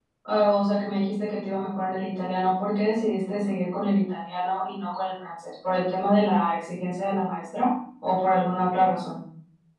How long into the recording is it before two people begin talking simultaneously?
none

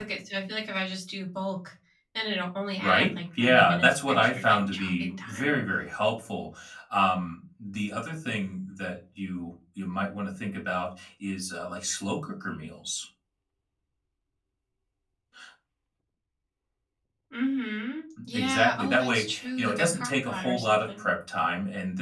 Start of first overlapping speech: 3 s

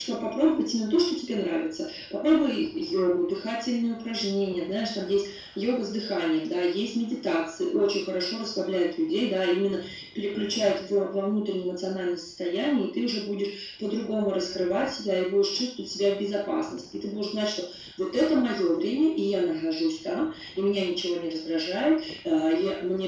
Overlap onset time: none

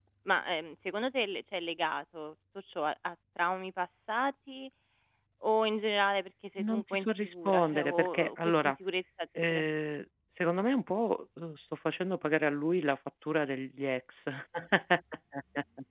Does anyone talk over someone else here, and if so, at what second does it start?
7 s

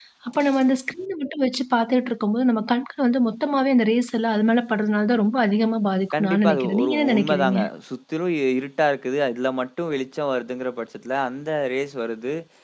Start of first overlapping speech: 6 s

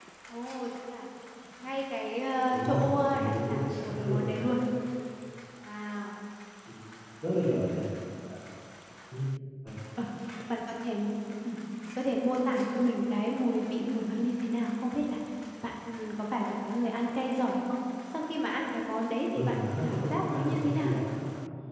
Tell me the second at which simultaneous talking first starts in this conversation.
3 s

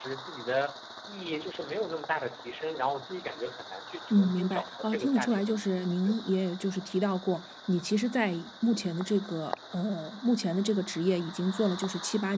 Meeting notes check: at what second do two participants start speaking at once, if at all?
4 s

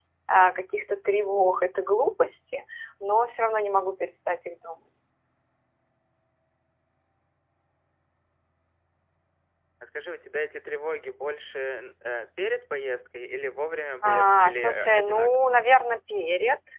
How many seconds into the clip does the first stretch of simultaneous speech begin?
14 s

